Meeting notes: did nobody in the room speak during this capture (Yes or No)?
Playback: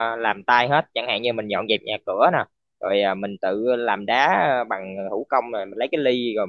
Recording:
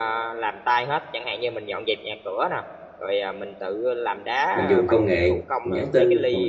No